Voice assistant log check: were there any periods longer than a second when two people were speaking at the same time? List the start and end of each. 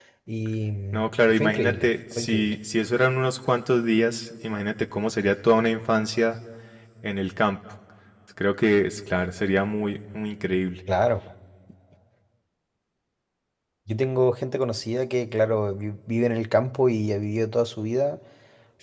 0.9-2.5

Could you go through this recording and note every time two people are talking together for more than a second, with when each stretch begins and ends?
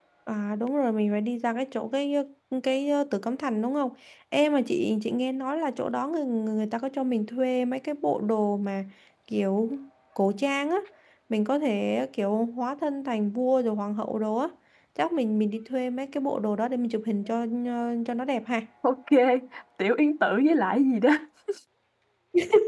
none

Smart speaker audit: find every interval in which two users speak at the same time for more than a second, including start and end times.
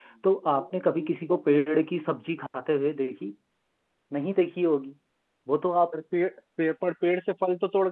none

